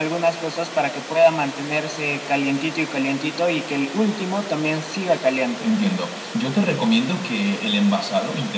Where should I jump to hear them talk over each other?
none

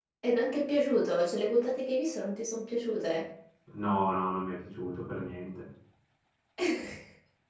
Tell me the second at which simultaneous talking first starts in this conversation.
none

